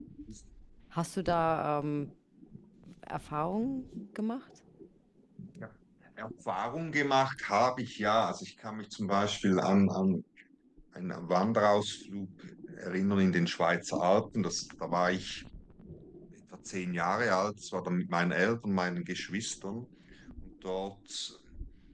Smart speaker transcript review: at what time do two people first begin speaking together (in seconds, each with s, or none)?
none